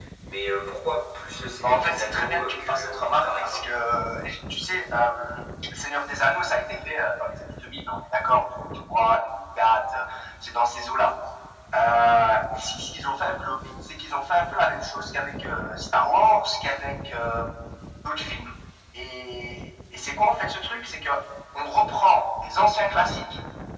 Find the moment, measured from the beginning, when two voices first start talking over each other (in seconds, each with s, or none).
1.6 s